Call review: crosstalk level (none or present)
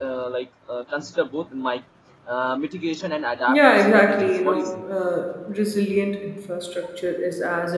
present